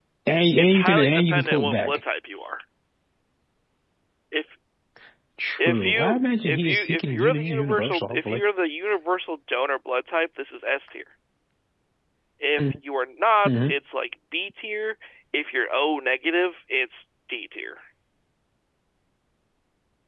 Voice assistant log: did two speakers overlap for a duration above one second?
Yes, from 0.6 s

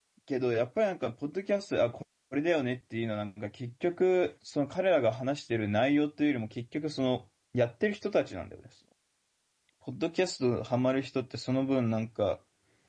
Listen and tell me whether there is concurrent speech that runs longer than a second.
No

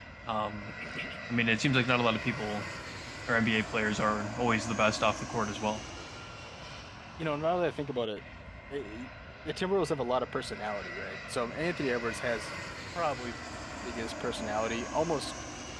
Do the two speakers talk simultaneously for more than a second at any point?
No

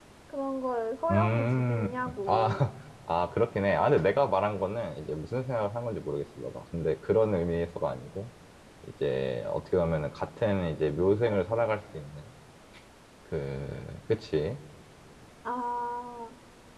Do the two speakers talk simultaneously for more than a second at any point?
Yes, from 1.1 s

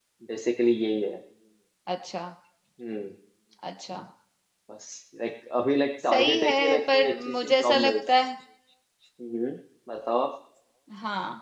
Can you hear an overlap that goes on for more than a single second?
Yes, from 6.1 s

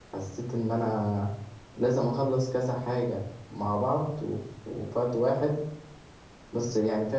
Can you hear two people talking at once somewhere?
No

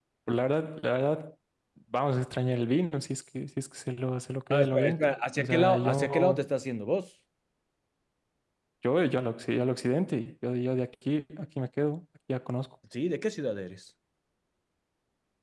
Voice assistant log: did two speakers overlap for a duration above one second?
Yes, from 4.5 s

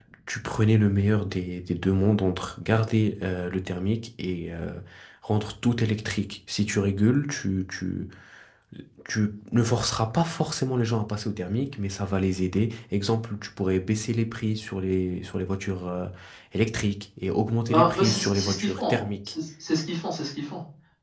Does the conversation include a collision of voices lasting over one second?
Yes, from 17.7 s

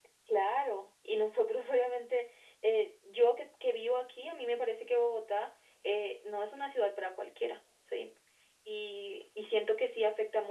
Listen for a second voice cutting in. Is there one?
No

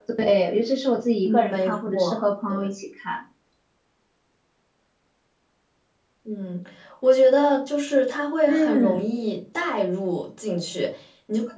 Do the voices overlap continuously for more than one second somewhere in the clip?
Yes, from 1.2 s

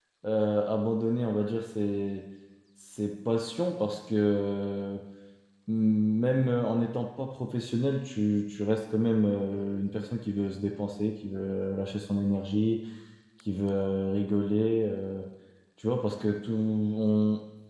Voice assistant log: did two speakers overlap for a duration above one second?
No

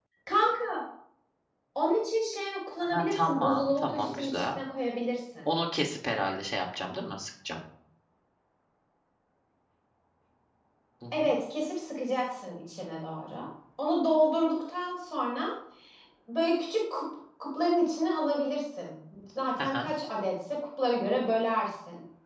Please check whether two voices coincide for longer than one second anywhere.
Yes, from 2.8 s

